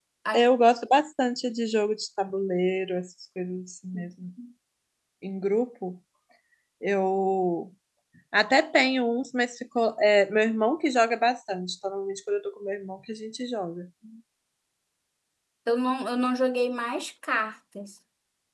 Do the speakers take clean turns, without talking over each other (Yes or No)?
Yes